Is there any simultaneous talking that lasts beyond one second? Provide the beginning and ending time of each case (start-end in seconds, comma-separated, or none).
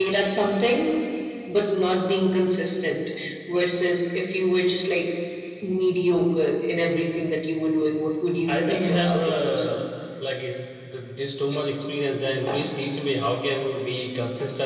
8.5-9.8